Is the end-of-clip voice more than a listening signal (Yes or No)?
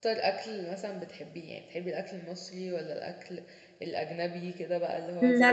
Yes